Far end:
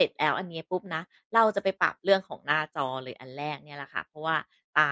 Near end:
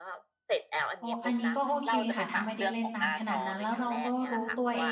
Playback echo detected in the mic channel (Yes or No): Yes